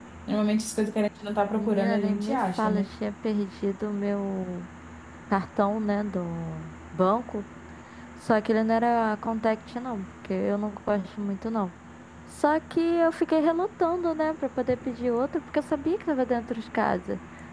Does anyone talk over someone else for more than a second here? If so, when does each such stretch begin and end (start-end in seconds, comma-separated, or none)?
1.5-2.9